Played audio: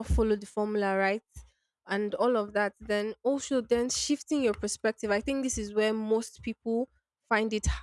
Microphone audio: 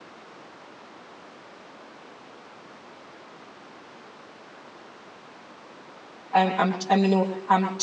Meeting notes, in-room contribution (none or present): present